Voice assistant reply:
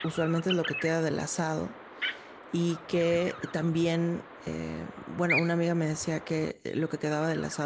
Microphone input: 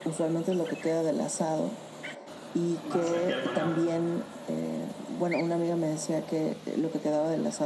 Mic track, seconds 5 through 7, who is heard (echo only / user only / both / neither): echo only